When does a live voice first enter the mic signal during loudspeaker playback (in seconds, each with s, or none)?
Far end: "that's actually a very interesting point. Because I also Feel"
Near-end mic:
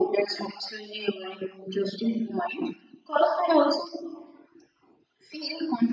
none